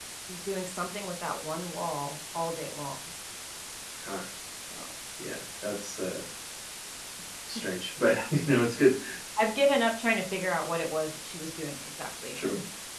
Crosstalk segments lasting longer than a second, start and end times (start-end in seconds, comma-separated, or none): none